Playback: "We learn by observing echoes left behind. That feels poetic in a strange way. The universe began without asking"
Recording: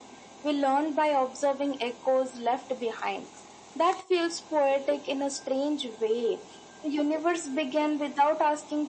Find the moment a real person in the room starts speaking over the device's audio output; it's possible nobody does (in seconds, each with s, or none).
none